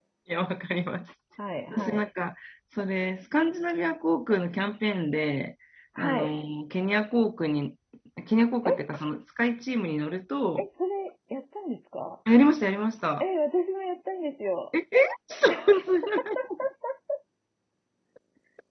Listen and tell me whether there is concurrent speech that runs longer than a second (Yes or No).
No